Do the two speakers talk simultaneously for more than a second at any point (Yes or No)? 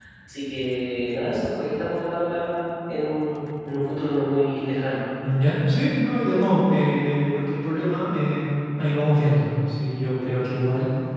No